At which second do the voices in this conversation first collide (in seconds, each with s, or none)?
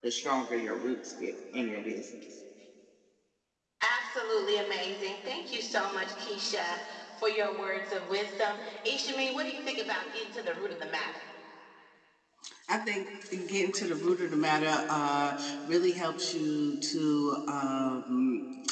none